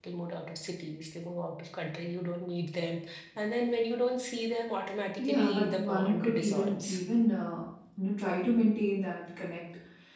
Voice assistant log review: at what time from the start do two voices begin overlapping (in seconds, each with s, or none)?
5.2 s